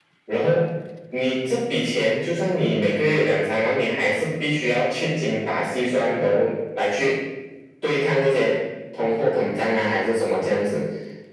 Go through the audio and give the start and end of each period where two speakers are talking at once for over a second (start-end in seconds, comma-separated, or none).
none